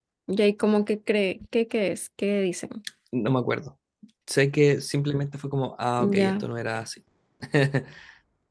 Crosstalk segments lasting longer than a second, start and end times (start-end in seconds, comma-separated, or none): none